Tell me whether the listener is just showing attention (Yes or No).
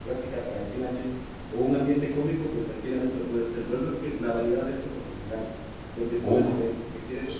Yes